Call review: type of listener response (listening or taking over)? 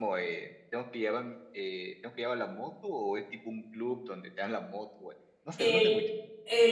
taking over